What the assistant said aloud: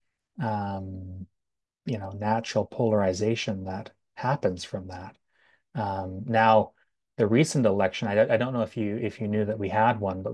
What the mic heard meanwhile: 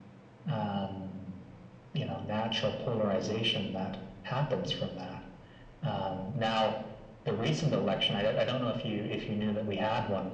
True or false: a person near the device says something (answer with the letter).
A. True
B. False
B